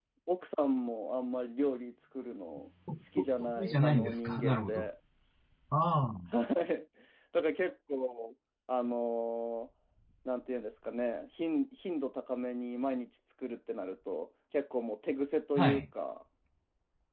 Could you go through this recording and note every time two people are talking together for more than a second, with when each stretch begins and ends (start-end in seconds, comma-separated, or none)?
3.2-4.9